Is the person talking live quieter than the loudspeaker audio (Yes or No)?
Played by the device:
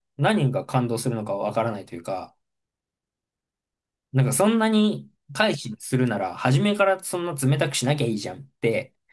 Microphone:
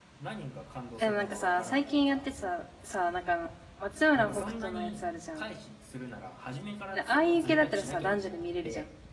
No